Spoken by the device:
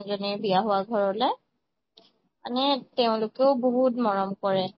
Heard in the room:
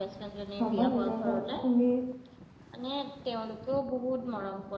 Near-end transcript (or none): ভাবা নিজৰ এটা তুমি